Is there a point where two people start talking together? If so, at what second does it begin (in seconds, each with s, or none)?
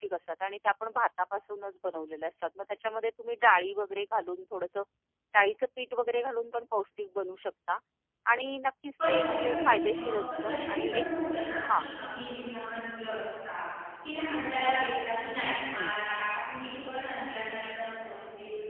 9.1 s